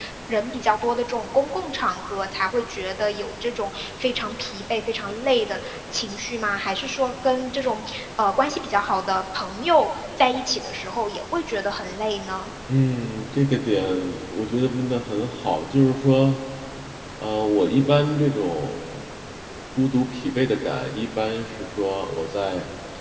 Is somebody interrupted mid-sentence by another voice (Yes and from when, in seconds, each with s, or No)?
No